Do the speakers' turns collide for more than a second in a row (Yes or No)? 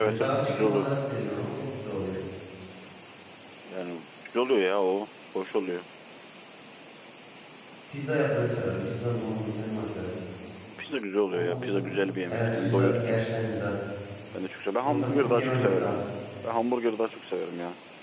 Yes